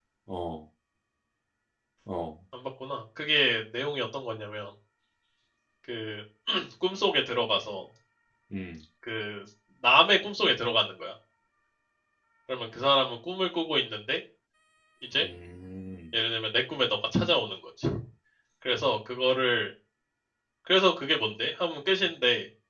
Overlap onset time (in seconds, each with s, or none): none